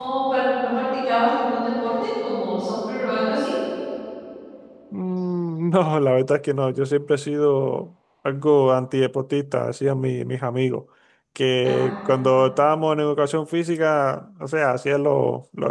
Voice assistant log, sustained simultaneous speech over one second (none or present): none